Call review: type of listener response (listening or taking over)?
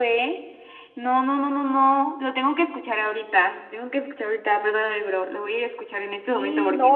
taking over